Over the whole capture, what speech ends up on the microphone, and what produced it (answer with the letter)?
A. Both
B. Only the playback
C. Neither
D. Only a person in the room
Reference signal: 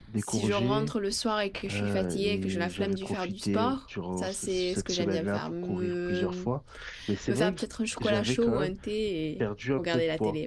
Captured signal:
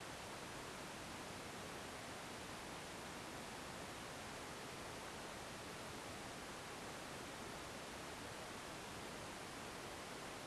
C